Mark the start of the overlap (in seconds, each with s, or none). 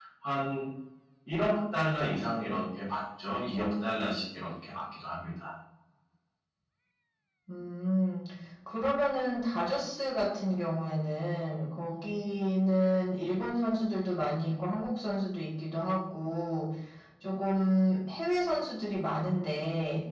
none